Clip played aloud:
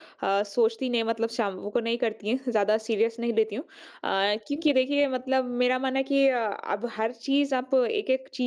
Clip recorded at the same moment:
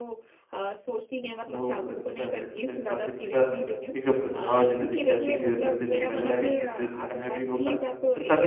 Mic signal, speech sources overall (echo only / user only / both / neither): both